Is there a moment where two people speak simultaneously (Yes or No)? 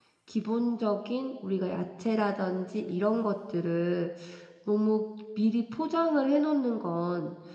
No